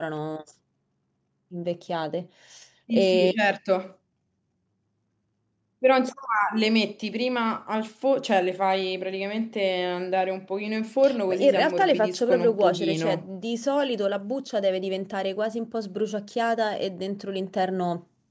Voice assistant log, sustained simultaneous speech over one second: present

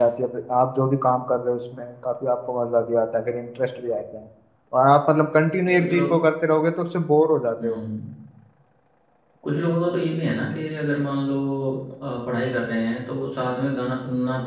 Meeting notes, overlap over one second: none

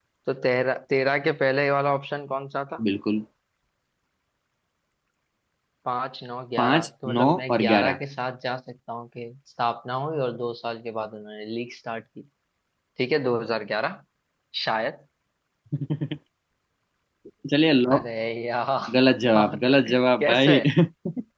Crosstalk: present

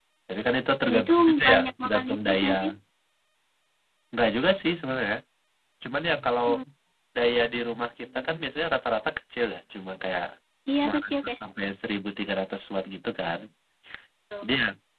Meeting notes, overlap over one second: present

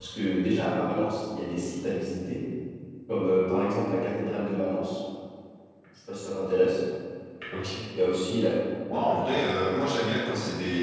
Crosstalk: none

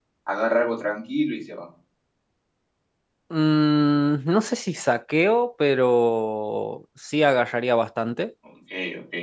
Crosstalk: none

